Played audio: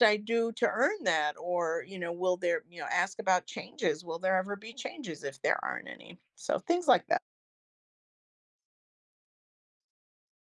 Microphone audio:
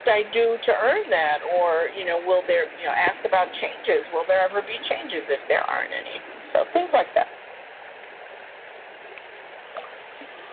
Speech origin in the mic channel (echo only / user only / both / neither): echo only